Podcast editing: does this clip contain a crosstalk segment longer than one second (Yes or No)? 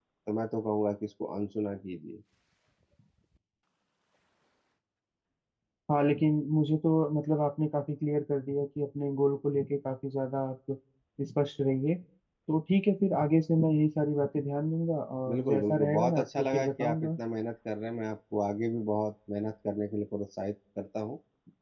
Yes